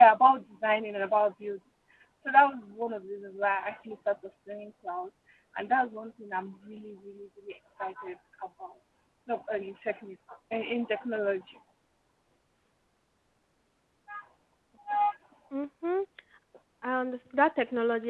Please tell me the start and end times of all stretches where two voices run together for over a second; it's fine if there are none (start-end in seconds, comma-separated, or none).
none